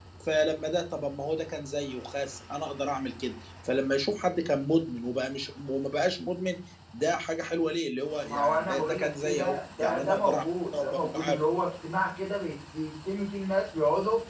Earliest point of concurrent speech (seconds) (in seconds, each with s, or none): 8.3 s